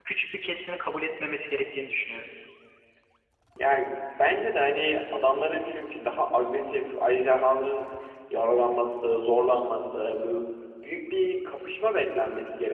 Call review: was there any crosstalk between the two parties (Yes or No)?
No